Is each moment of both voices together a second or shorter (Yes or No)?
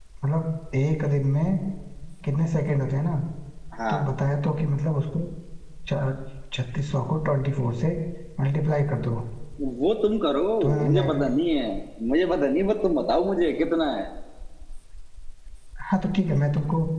Yes